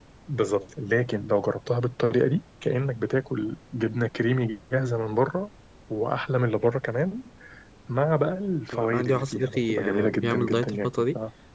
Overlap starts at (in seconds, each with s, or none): 8.7 s